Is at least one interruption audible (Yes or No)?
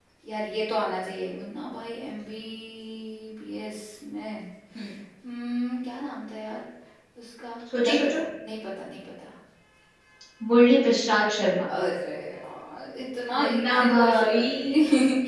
Yes